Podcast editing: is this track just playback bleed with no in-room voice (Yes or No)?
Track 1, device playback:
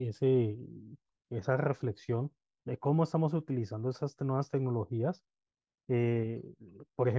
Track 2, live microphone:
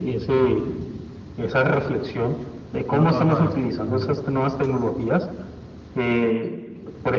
No